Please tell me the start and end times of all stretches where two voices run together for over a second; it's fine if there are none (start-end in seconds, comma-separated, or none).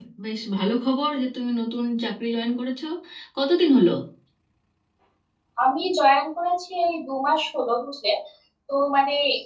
none